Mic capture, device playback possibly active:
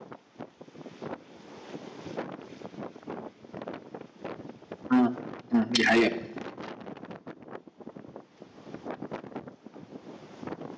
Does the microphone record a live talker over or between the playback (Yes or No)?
Yes